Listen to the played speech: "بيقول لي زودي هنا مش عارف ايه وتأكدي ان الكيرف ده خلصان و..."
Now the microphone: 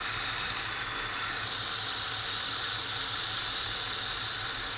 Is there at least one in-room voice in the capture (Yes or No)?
No